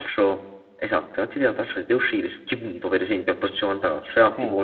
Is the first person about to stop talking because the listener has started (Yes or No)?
No